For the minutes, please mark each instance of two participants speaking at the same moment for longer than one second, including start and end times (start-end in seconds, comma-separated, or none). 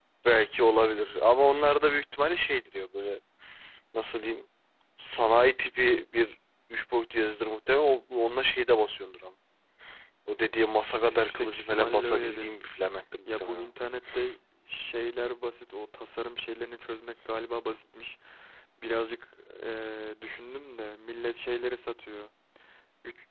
11.0-12.5